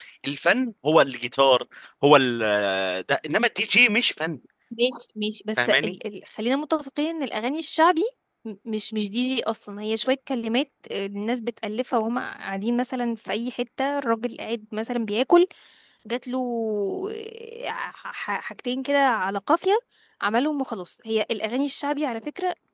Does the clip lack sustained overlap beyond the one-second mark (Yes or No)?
Yes